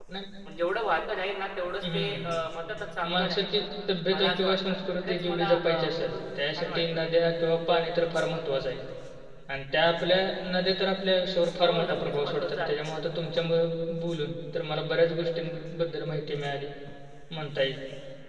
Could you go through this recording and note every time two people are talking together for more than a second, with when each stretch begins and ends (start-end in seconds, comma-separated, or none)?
4.1-6.8, 11.6-12.8